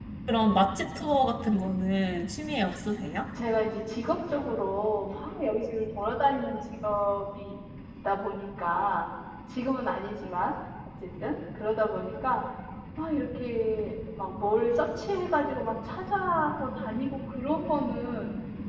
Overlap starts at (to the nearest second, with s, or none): none